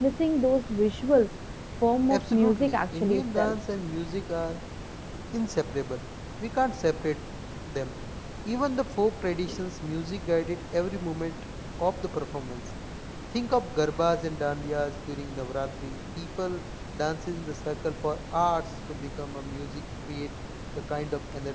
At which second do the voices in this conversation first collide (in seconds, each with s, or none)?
2.1 s